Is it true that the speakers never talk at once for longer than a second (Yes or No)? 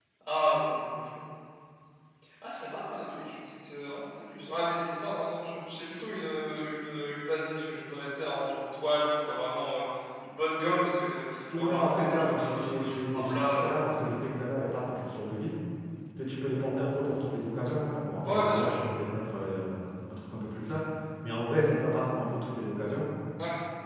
No